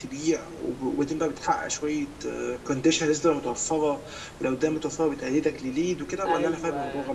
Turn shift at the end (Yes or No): Yes